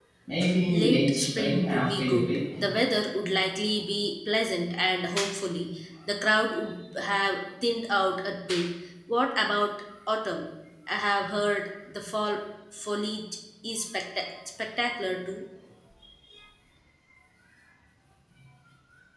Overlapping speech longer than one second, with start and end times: 0.7-2.4

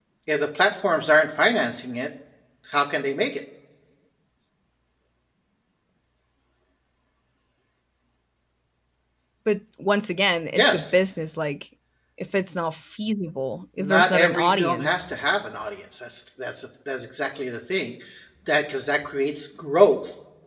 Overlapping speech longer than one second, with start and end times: 13.8-15.0

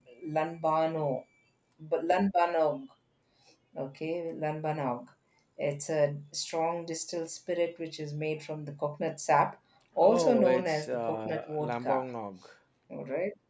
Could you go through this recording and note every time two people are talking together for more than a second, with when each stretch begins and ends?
10.0-12.0

